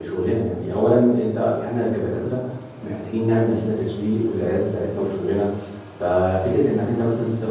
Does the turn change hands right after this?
No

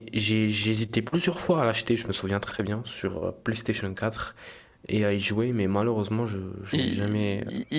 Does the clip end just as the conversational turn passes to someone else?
Yes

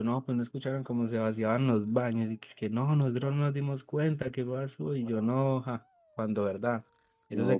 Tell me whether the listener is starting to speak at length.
No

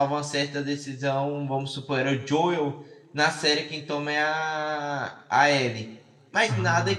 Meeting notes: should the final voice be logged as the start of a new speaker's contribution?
No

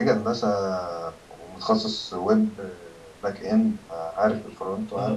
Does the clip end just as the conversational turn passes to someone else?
Yes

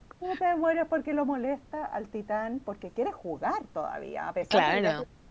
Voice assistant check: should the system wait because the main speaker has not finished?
Yes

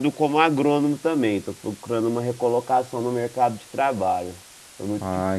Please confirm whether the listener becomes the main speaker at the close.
Yes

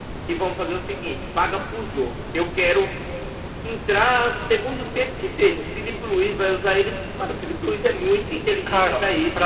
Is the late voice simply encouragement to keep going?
No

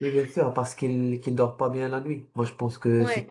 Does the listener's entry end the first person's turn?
No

